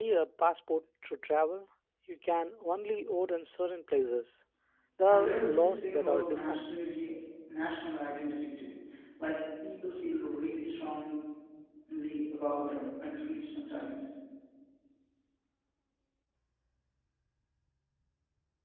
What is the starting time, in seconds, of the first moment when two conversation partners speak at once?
5.1 s

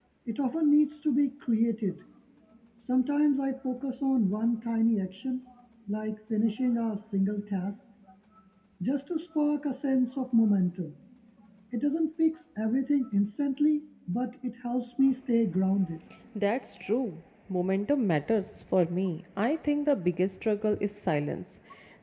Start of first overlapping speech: none

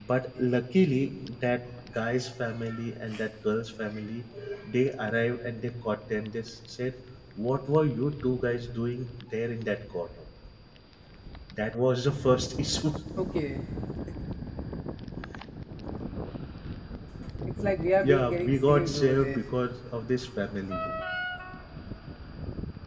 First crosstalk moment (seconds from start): 18.0 s

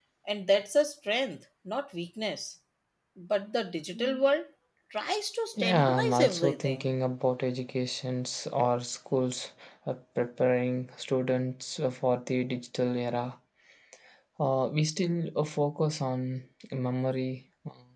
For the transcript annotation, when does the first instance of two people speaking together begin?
5.6 s

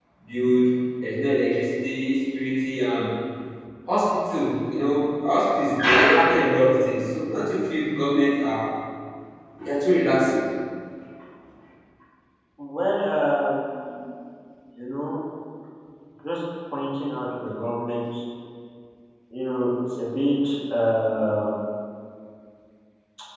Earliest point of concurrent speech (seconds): none

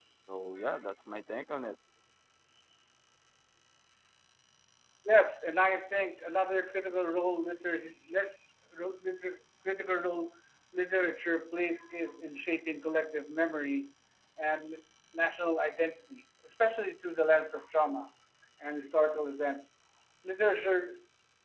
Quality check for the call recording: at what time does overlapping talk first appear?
none

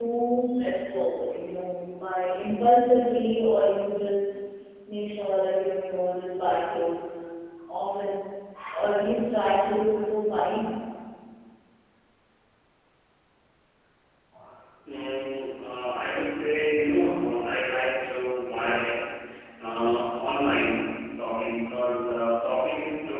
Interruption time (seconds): none

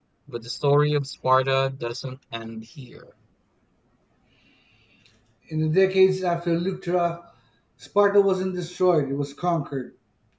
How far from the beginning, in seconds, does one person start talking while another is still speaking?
none

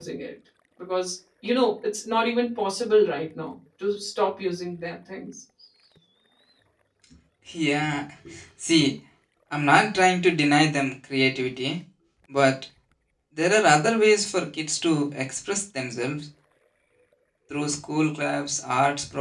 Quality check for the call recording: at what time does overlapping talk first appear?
none

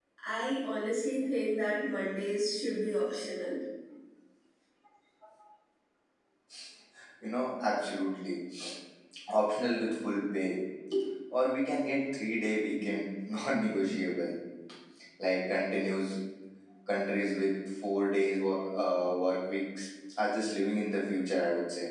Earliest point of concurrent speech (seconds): none

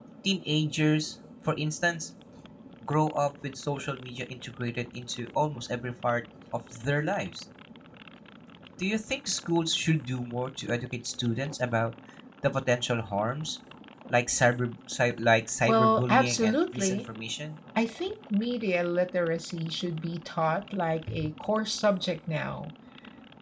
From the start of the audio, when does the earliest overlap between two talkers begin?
15.7 s

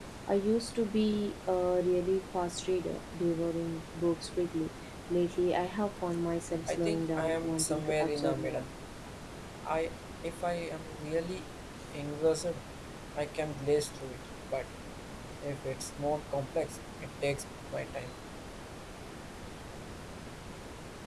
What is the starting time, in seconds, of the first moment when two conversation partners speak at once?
6.7 s

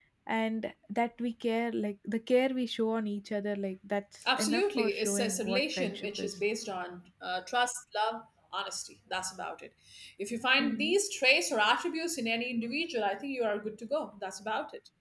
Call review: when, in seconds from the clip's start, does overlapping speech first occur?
4.3 s

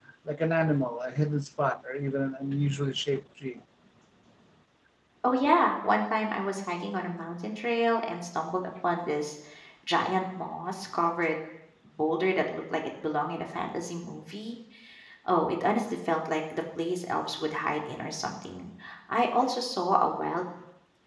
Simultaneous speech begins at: none

